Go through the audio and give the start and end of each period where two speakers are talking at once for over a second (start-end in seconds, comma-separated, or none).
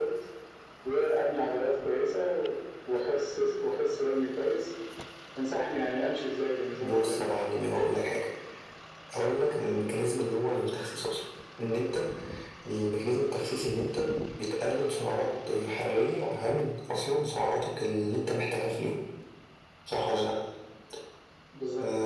none